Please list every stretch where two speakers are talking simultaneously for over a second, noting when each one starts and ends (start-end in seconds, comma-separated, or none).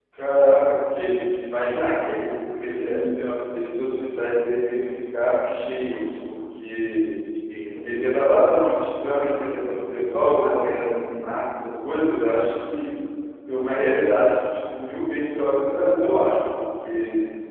none